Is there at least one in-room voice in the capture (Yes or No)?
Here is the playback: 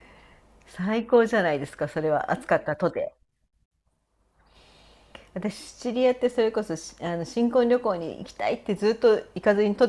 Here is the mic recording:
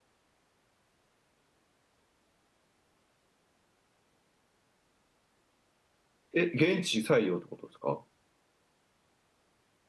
Yes